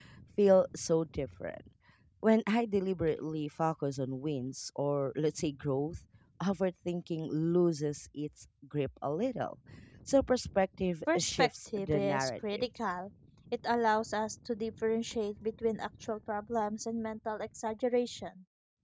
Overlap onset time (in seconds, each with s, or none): 11.1 s